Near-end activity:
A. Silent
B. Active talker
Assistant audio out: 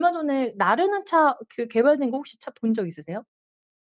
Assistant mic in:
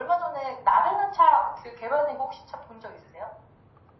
A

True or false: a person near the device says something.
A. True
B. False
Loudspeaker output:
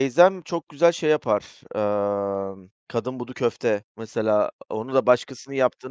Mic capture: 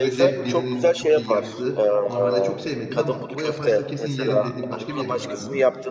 A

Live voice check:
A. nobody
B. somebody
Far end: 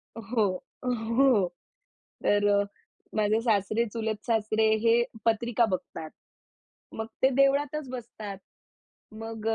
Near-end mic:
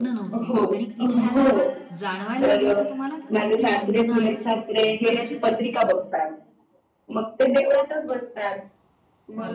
B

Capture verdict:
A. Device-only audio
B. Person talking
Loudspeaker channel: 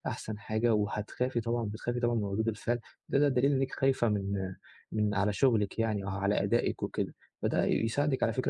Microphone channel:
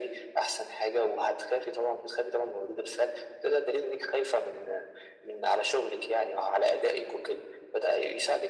A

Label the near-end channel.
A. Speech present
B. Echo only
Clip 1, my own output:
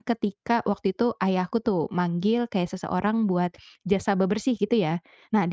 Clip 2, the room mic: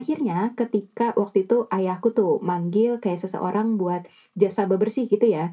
B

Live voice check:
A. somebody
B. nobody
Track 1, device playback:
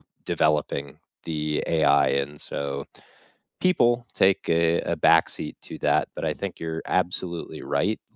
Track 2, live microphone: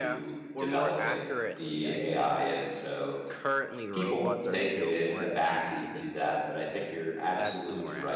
A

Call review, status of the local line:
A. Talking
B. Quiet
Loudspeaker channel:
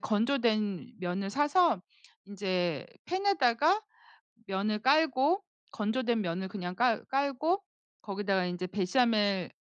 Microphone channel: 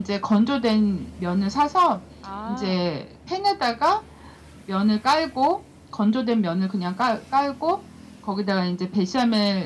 A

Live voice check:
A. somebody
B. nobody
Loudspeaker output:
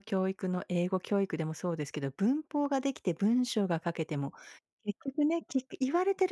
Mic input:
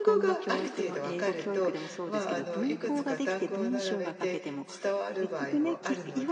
A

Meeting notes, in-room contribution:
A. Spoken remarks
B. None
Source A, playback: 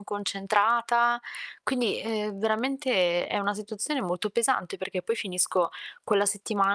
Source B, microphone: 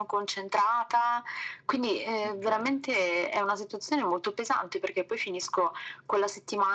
A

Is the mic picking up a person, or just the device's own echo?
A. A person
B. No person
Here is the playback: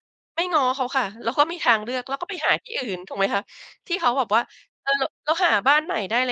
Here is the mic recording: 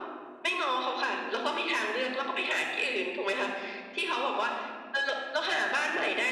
B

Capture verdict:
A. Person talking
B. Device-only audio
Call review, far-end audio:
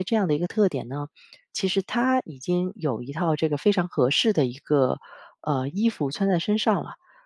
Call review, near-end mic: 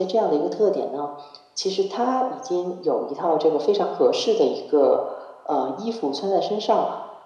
B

